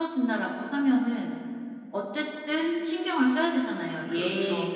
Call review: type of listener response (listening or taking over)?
listening